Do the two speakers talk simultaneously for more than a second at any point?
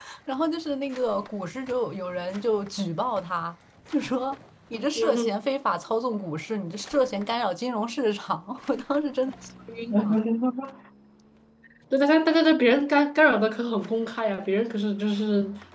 No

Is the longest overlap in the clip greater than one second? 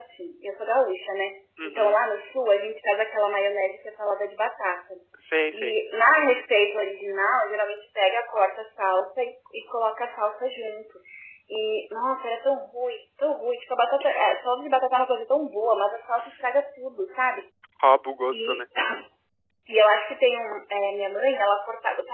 No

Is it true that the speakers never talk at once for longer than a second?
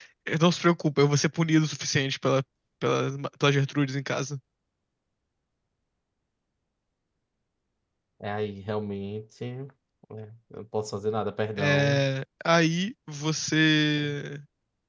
Yes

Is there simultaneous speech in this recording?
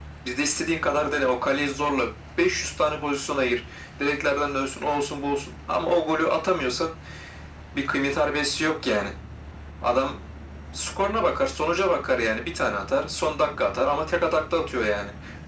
No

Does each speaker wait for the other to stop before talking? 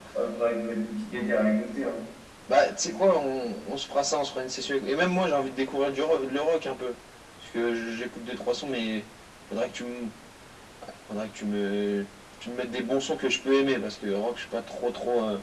Yes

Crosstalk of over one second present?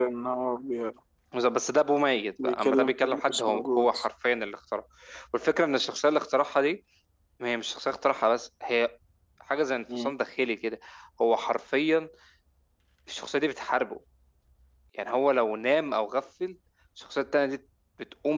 Yes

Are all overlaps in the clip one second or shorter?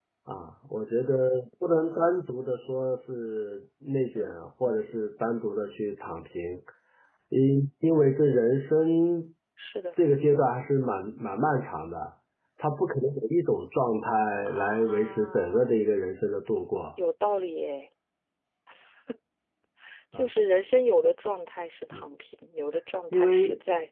No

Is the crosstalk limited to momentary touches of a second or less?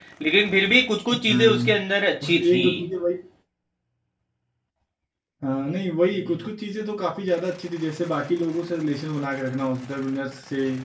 Yes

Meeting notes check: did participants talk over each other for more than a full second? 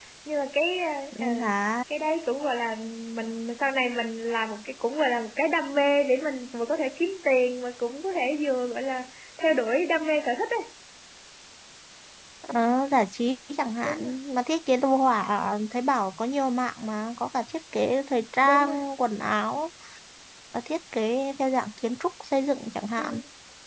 No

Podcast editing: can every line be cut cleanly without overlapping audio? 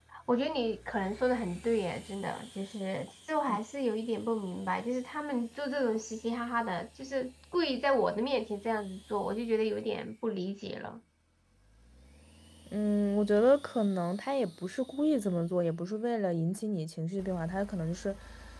Yes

